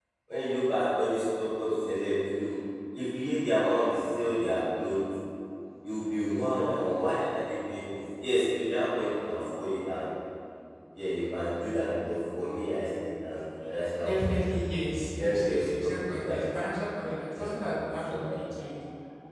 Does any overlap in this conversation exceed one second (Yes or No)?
Yes